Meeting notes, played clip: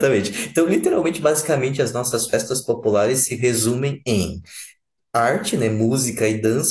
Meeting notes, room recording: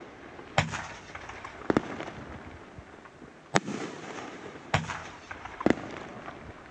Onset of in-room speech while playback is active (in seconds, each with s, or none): none